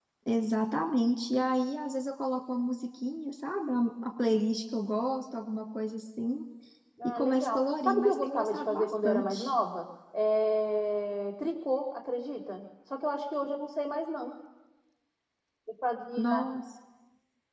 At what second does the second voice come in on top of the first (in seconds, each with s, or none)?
7.0 s